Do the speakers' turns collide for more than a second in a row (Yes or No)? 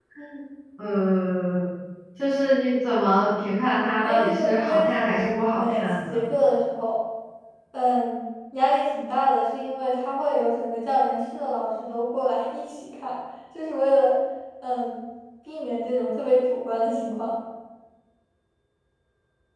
Yes